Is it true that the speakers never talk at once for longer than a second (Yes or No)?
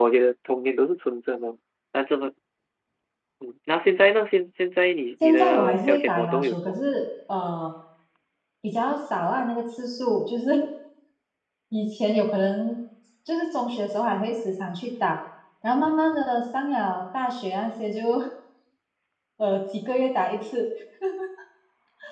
No